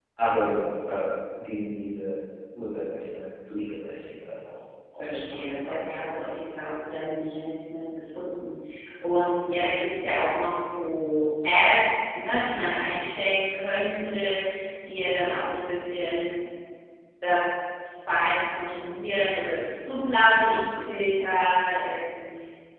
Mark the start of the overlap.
5.0 s

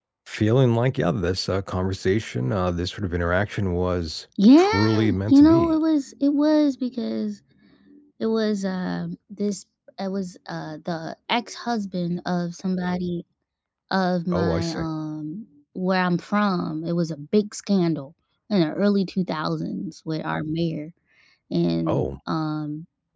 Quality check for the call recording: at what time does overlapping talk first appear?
4.6 s

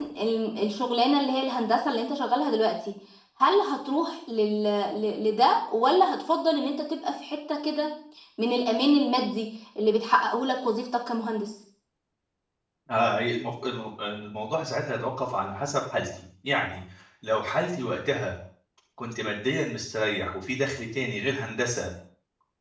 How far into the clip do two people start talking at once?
none

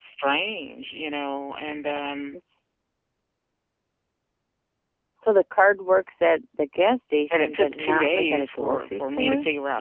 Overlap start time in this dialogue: 7.3 s

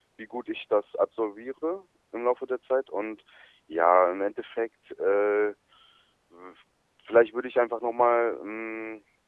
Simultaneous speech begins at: none

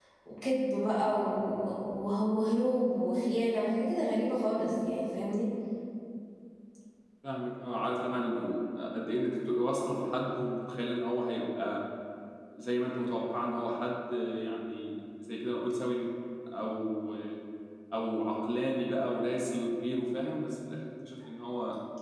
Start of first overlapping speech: none

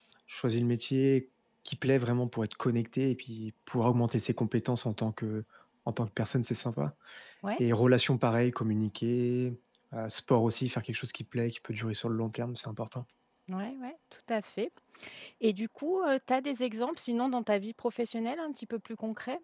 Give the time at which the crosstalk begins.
none

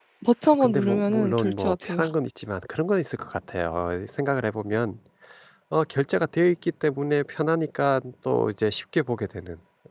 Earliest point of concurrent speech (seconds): 0.6 s

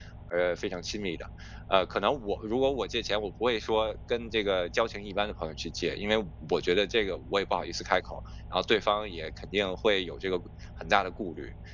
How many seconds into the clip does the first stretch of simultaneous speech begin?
none

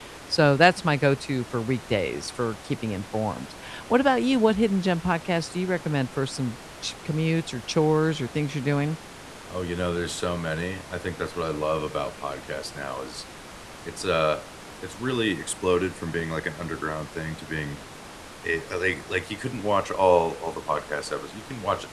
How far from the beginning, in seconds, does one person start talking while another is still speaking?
none

